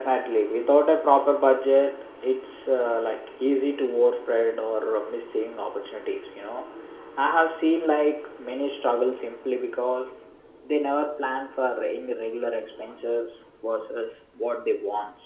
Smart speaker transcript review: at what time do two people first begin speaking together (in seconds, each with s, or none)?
none